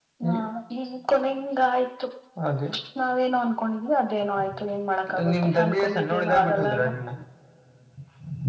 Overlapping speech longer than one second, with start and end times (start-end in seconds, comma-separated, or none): 5.3-6.9